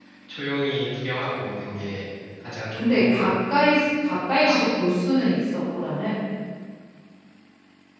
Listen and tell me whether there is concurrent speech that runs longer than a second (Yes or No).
No